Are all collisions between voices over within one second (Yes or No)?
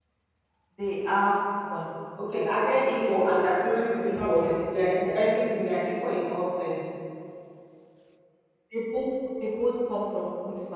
No